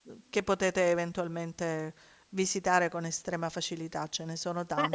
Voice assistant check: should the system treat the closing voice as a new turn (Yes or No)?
Yes